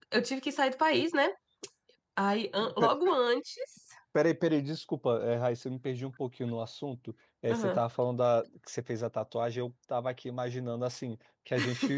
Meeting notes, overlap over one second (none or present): none